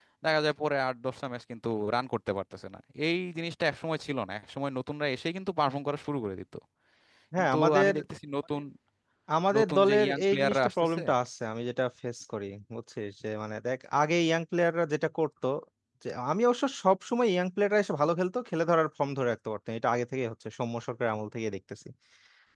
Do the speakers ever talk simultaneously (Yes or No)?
Yes